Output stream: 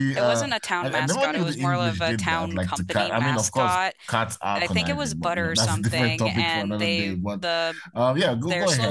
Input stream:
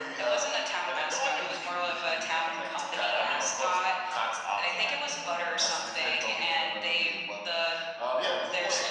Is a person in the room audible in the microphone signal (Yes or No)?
No